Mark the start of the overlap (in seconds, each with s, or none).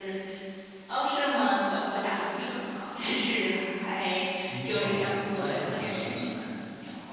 4.6 s